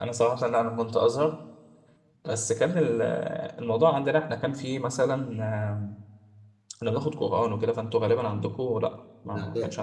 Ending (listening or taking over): taking over